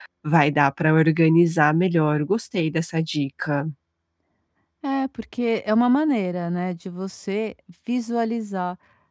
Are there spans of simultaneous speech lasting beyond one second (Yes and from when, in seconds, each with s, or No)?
No